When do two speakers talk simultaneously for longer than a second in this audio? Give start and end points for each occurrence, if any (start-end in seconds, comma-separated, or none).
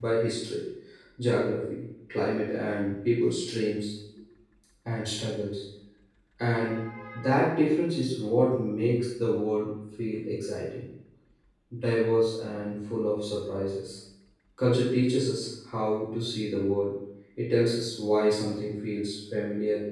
none